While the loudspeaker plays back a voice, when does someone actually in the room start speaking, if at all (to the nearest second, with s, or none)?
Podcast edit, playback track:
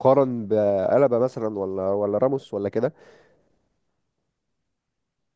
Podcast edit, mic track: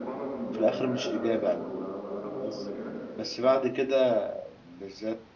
1 s